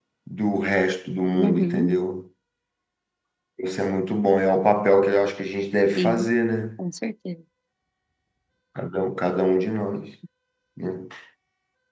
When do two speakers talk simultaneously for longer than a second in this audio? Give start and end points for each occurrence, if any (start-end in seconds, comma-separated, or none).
none